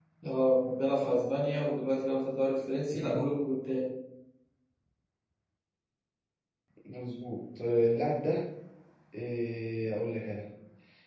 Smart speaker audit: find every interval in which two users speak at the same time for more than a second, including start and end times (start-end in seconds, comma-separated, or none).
none